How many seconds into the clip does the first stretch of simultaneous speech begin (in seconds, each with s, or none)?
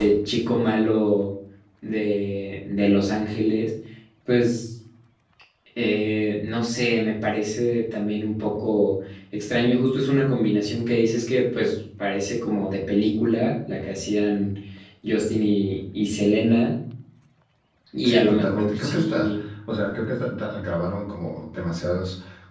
18.0 s